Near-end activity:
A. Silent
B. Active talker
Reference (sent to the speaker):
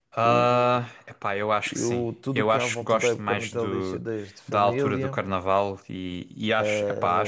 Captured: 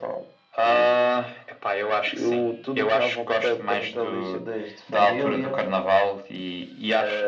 A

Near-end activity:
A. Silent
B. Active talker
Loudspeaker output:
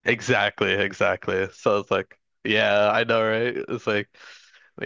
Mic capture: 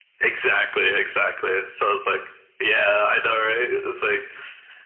A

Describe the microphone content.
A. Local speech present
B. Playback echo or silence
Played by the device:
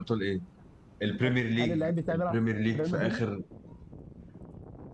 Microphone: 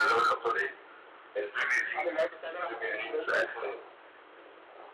B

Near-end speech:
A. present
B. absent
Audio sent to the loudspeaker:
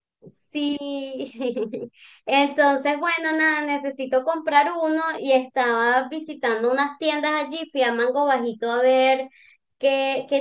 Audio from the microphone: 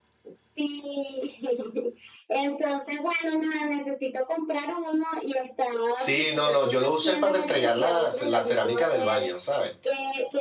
A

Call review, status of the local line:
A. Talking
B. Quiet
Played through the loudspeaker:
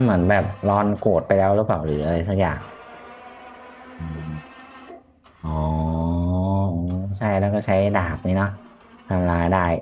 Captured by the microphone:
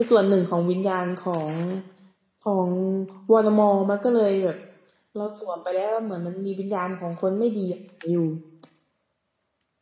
A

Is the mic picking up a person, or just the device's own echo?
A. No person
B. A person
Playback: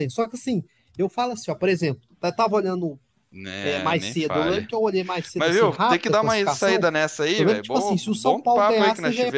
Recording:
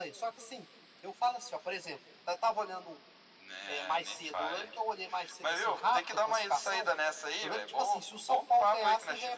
A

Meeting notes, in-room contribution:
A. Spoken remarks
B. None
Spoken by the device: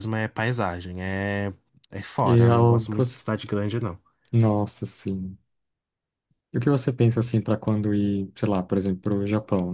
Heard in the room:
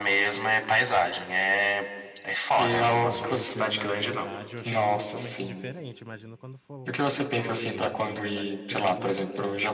A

